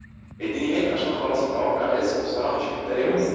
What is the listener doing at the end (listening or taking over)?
taking over